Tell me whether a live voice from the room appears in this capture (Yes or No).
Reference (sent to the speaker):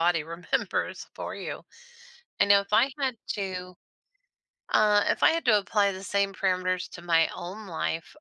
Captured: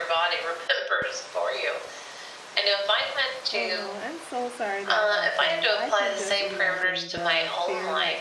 Yes